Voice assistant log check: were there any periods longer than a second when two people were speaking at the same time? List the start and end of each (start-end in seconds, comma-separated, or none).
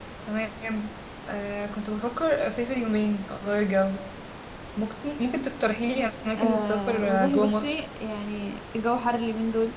6.4-7.8